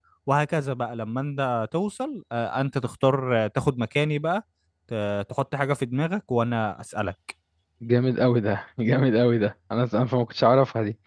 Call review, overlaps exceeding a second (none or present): none